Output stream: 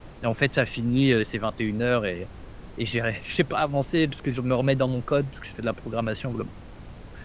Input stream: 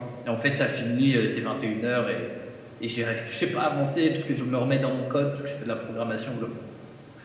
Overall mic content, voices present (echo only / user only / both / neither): echo only